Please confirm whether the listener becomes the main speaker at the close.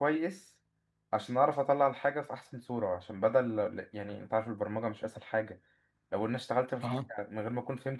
No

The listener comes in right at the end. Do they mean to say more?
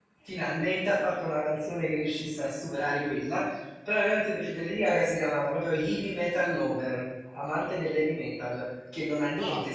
No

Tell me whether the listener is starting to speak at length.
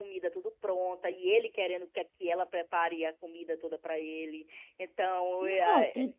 Yes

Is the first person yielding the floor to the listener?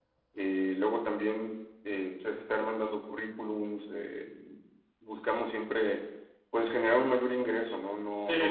Yes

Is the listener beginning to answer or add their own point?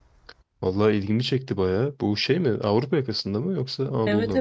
Yes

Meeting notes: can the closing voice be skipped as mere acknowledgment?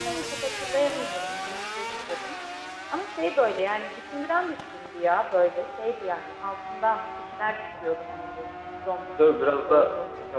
No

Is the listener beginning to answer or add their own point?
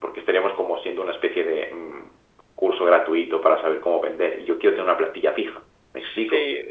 Yes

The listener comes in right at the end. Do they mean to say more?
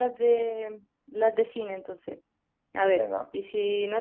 No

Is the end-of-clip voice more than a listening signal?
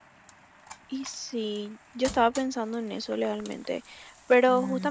No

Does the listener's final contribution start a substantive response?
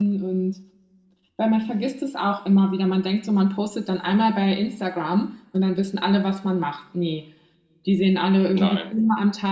No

